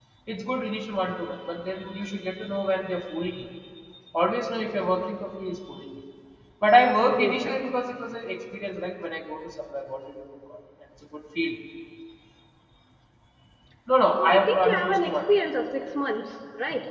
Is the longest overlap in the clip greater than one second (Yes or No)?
Yes